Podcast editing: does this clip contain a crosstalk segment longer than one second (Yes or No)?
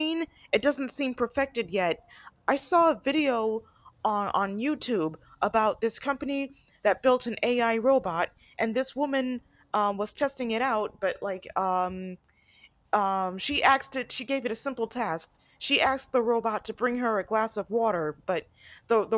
No